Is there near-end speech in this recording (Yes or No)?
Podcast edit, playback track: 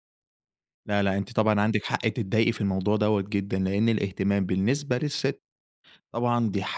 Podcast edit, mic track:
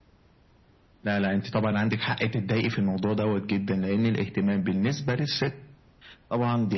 No